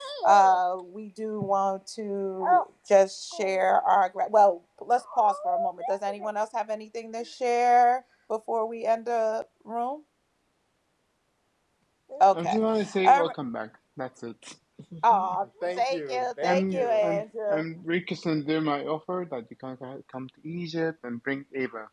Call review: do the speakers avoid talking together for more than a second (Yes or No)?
No